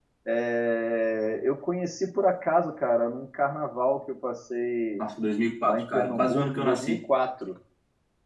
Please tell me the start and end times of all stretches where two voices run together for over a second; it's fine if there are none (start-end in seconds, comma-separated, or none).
5.6-7.0